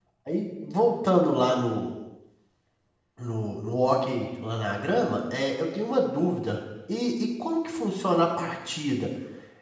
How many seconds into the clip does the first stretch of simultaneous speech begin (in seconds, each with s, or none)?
none